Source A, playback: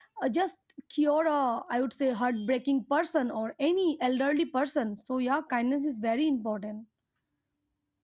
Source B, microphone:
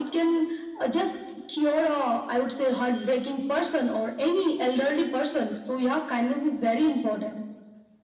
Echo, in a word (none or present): present